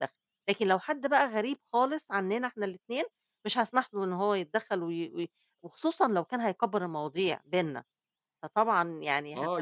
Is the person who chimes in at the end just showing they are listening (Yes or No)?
No